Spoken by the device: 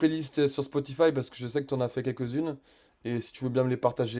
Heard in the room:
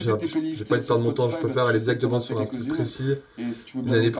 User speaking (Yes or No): Yes